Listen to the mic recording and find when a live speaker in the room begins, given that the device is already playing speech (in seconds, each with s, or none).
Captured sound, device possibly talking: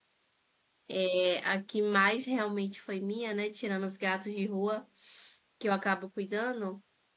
0.9 s